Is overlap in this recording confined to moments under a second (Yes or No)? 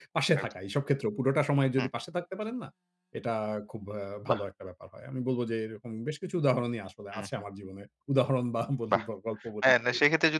Yes